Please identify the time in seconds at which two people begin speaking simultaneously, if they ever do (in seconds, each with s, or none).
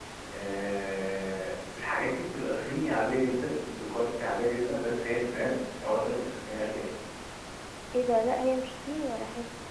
none